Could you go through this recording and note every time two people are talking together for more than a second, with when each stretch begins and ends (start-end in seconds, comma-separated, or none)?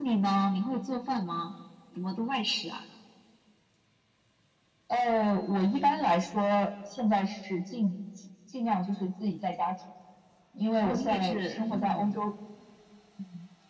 10.8-12.2